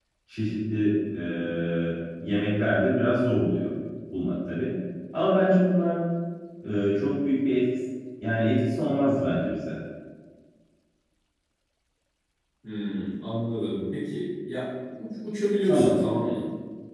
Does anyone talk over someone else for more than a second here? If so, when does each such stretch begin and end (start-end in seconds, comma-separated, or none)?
none